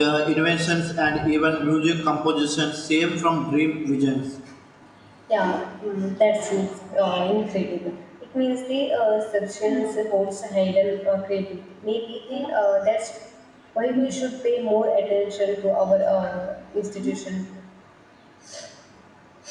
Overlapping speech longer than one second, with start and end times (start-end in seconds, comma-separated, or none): none